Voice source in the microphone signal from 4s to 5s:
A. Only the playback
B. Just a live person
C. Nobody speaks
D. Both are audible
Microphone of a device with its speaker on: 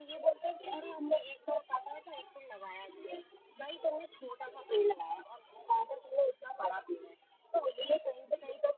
A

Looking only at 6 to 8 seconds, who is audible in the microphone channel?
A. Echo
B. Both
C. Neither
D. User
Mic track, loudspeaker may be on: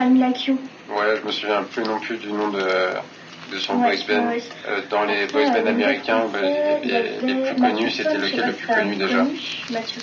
A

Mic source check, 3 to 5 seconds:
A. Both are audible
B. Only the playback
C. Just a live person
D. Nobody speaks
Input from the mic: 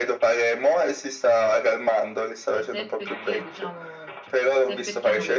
A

